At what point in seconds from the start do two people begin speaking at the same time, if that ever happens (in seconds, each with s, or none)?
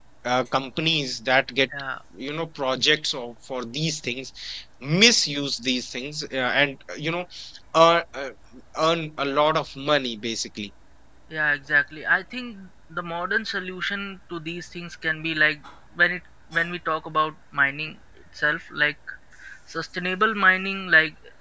none